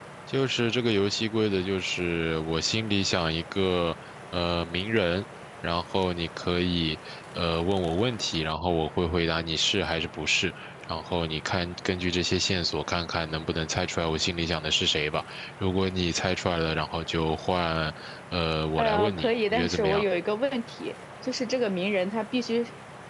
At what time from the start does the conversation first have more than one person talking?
19 s

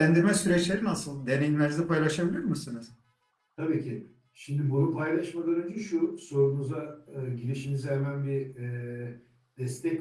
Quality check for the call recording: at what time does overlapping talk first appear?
none

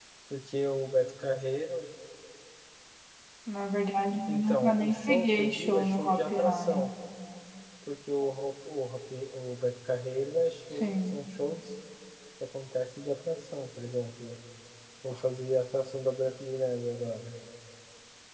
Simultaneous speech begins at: 4 s

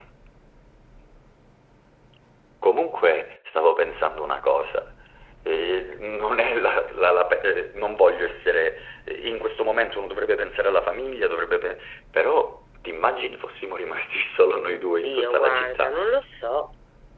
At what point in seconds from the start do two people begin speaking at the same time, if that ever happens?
15 s

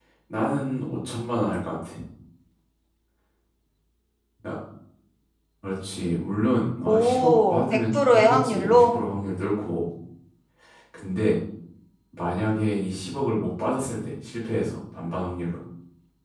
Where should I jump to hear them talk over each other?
7 s

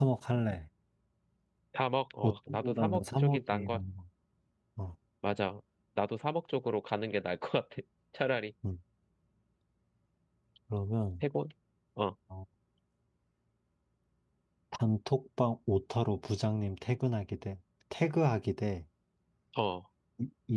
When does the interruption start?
2 s

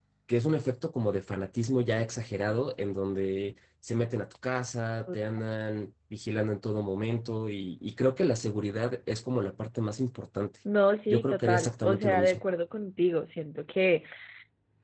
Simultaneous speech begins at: 11 s

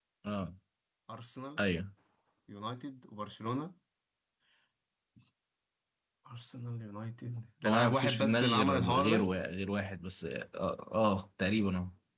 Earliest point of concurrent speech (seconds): 8 s

